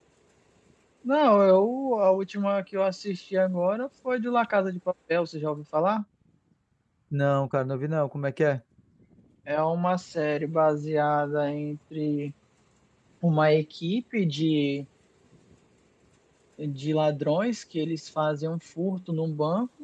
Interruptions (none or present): none